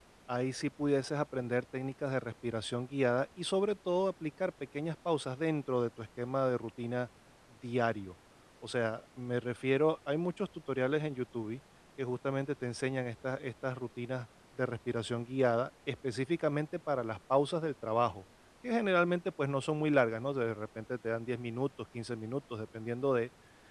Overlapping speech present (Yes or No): No